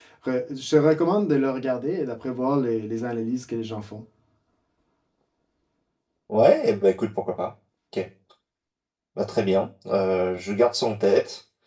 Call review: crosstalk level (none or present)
none